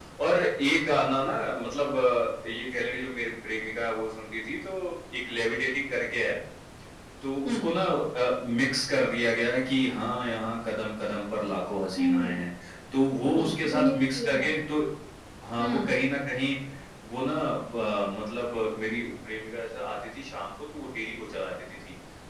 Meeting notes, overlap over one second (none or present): present